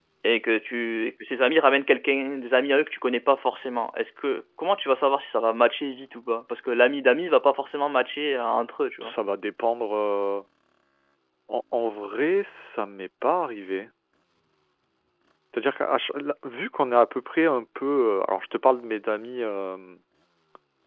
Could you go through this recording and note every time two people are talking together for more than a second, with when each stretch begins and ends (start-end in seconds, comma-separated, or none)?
none